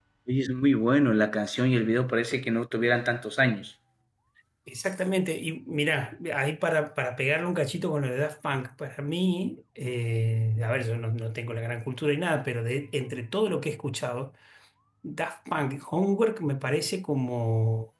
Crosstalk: none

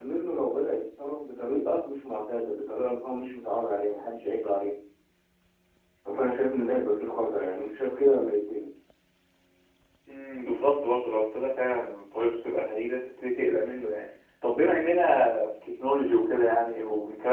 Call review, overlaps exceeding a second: none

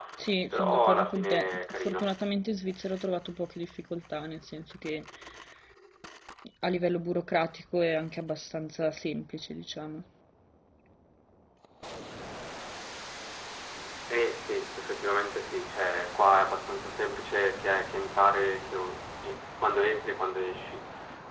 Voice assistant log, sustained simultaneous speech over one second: present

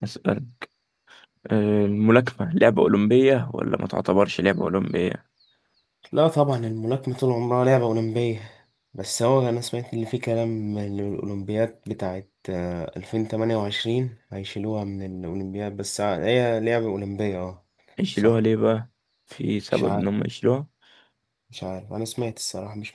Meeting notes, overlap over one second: none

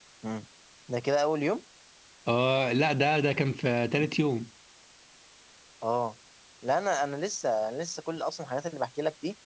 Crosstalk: none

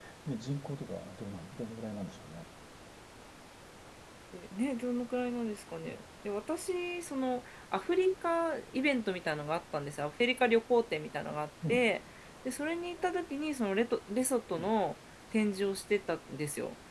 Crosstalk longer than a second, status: none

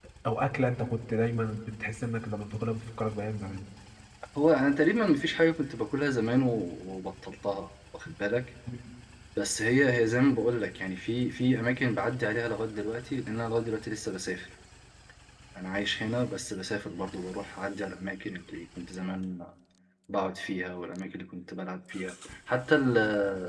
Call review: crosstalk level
none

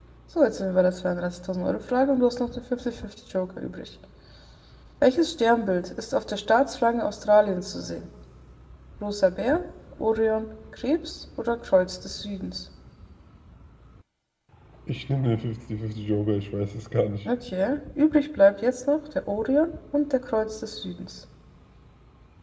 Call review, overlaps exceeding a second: none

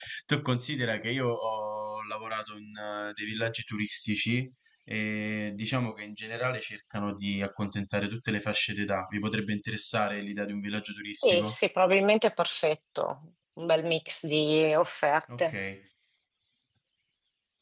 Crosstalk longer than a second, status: none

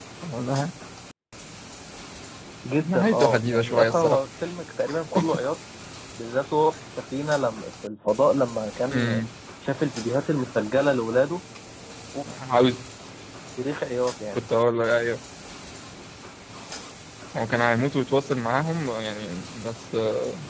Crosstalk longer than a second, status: present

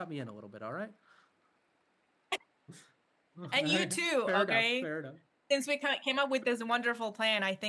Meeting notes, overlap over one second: present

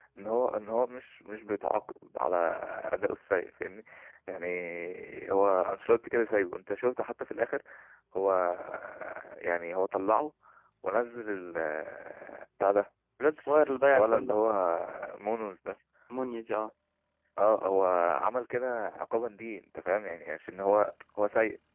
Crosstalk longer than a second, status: none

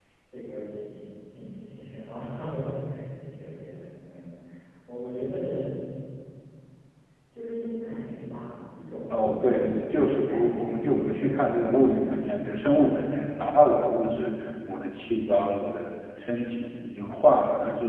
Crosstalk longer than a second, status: present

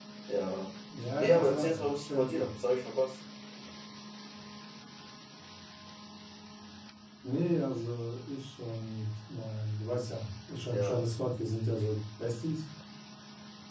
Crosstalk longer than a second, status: present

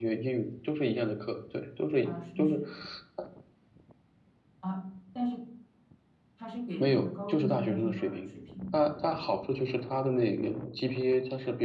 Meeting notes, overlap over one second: present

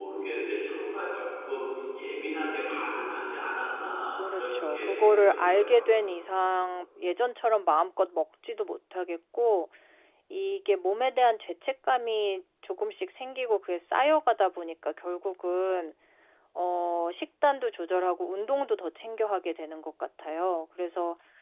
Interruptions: present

